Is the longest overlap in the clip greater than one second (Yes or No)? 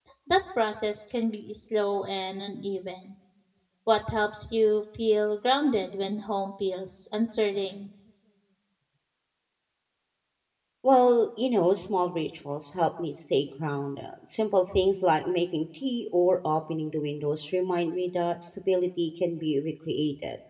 No